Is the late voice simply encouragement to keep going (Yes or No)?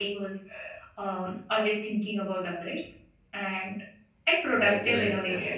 No